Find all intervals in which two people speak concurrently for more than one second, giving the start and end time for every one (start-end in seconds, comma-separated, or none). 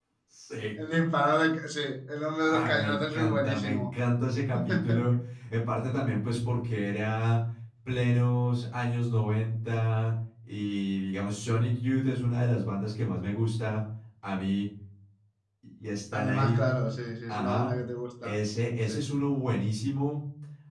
2.4-3.9